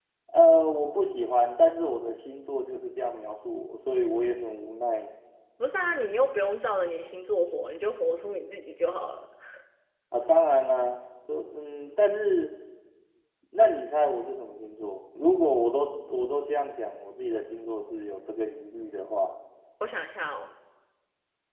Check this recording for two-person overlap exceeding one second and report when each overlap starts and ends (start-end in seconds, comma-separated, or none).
none